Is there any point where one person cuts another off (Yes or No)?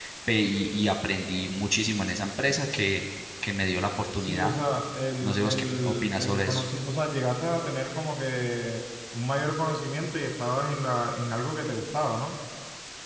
Yes